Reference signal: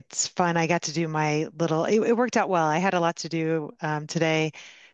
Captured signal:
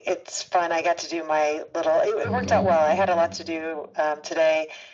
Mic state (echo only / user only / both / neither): both